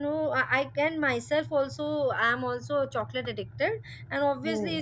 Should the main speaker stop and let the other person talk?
No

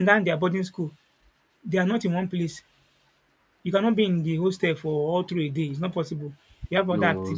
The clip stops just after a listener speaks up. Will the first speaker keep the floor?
Yes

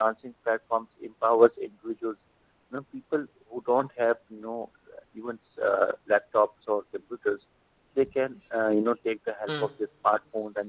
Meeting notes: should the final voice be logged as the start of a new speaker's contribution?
No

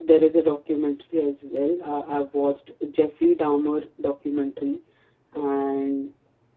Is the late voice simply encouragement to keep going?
Yes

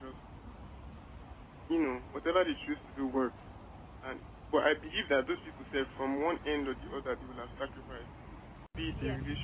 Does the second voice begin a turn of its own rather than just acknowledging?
No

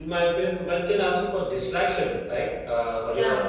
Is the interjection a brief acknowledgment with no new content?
Yes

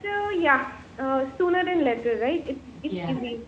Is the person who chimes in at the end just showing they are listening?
Yes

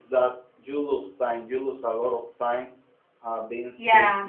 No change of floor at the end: Yes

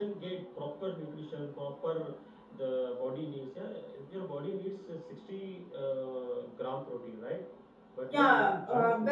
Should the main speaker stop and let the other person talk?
Yes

